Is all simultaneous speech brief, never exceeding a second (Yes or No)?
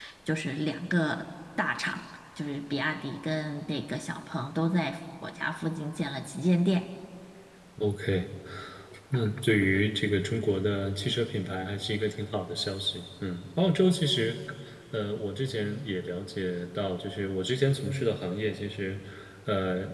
Yes